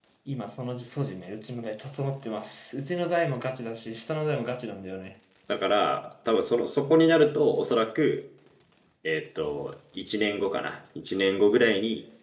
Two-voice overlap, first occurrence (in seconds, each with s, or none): none